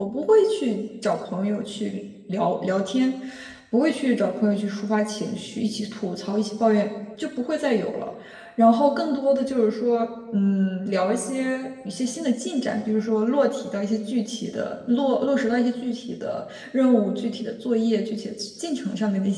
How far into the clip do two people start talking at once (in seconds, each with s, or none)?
none